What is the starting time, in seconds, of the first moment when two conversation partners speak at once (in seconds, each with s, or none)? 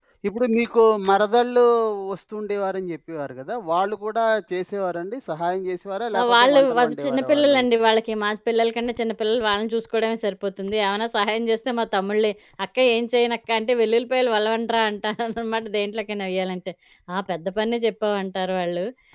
6.1 s